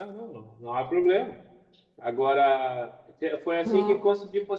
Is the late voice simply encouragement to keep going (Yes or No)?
Yes